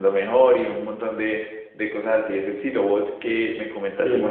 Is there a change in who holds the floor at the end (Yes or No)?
No